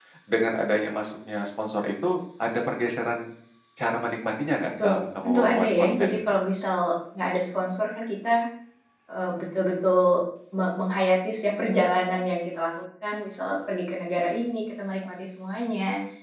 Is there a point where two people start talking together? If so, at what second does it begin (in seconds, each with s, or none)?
4.8 s